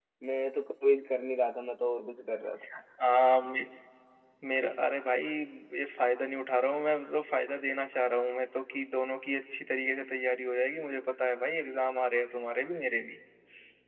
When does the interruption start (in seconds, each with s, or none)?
none